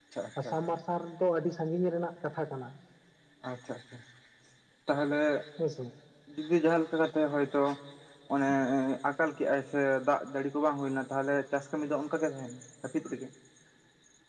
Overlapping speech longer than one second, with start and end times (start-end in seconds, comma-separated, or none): none